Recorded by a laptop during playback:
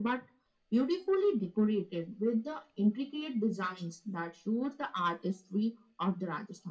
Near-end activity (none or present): none